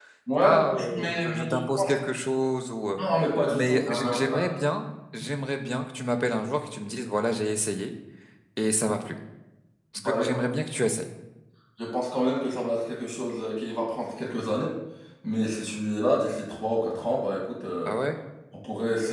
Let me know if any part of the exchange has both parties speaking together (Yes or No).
Yes